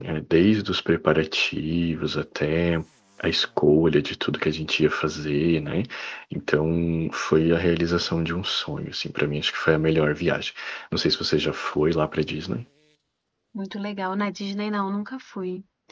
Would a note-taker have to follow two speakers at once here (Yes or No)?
No